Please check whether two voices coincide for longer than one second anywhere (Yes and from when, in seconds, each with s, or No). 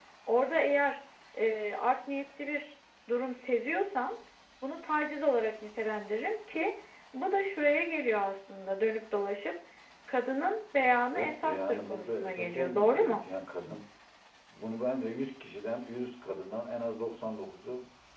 Yes, from 11.1 s